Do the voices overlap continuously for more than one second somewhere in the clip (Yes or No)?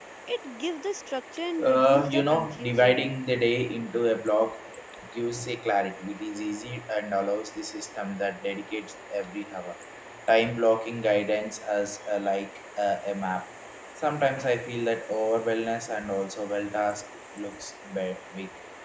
Yes